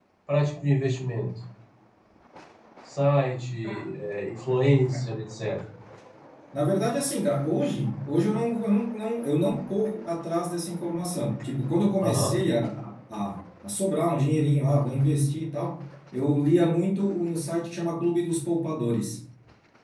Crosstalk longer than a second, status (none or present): none